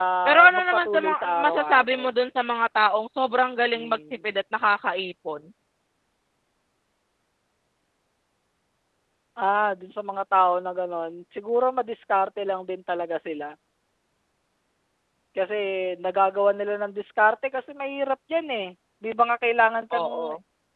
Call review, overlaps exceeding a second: present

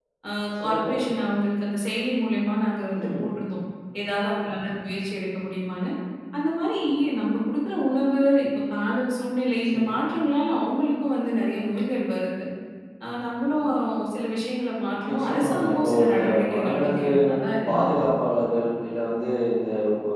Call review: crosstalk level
present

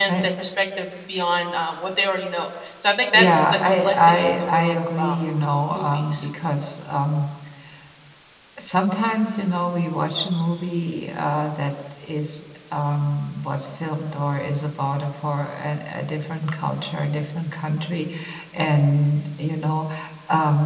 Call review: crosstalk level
present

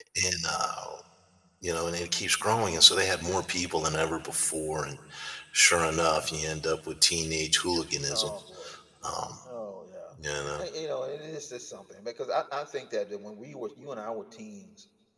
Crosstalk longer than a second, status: none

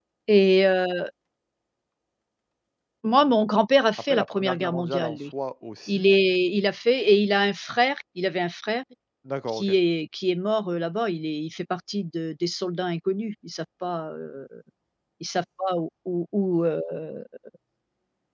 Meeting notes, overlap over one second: present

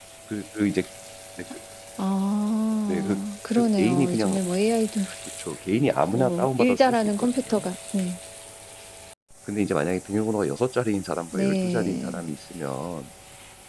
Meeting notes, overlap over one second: present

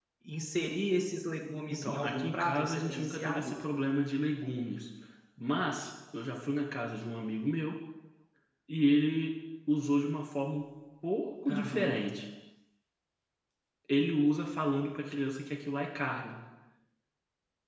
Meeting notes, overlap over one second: present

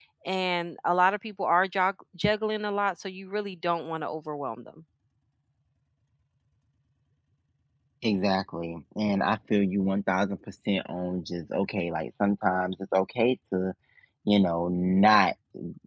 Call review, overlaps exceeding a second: none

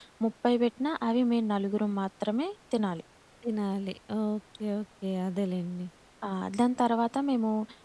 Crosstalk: none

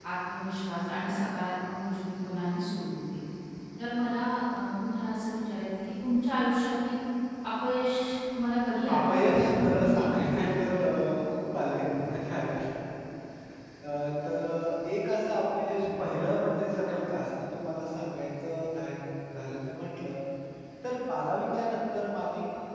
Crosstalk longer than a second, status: present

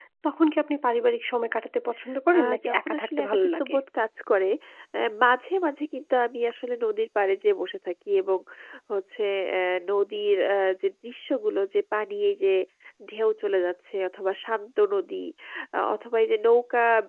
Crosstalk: present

